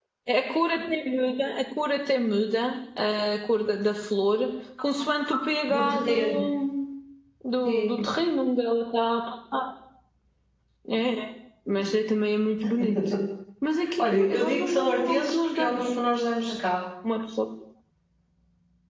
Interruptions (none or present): present